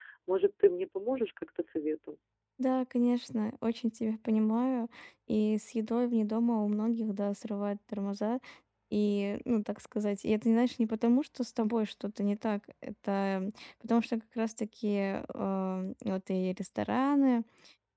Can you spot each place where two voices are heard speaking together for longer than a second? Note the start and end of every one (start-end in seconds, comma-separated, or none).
none